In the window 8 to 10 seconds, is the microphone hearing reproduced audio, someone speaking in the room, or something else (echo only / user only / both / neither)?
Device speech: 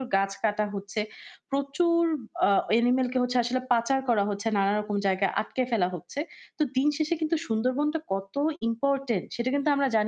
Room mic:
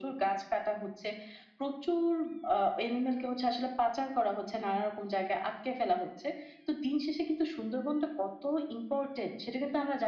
echo only